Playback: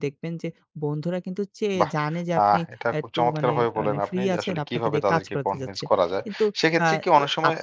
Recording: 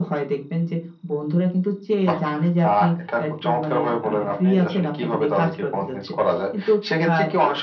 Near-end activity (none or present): none